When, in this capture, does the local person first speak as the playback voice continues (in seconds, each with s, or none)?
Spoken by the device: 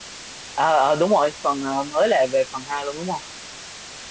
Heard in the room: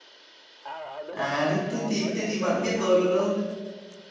1.1 s